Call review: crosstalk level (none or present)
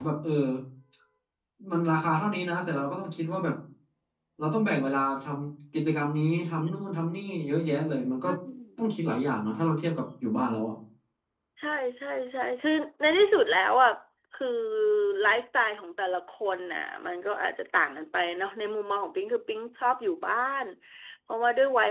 none